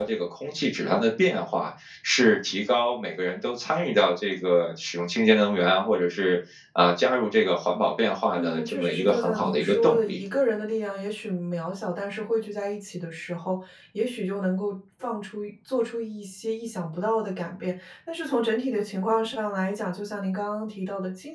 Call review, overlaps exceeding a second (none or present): present